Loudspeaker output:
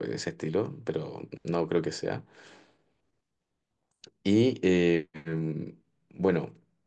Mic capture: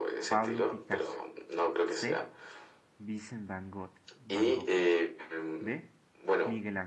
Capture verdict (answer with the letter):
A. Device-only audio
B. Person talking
B